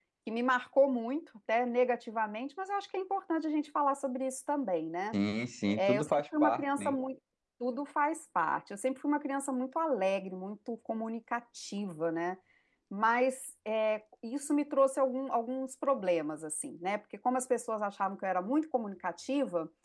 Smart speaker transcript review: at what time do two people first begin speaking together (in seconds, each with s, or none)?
5.8 s